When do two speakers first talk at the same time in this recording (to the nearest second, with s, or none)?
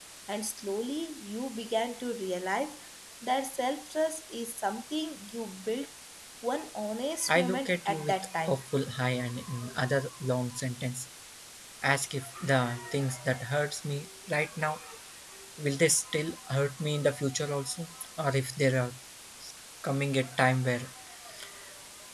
7 s